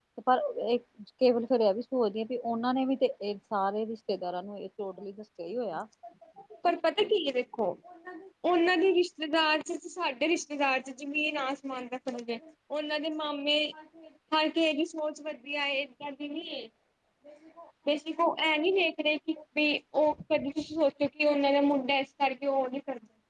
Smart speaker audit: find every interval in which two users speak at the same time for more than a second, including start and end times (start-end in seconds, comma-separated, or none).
none